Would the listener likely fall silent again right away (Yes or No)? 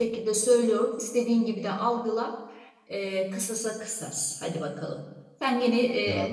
Yes